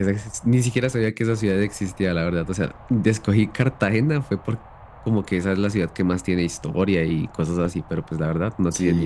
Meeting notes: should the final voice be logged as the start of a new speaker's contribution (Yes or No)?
Yes